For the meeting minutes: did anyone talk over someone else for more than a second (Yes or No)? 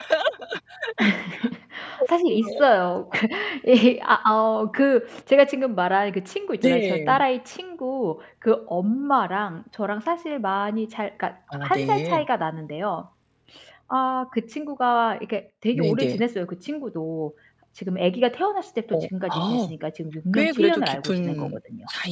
Yes